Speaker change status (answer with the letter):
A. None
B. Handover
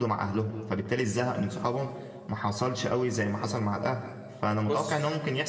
A